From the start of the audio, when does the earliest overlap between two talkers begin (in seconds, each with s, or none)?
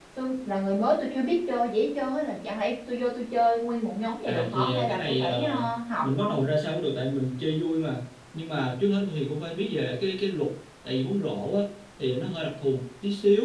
4.3 s